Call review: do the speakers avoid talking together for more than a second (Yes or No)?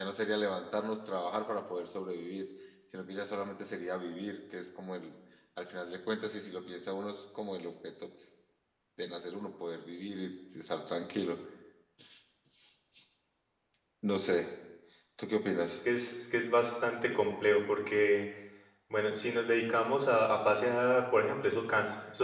Yes